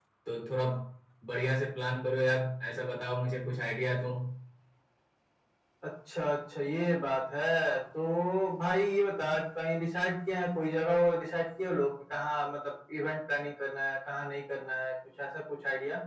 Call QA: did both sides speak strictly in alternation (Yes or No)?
Yes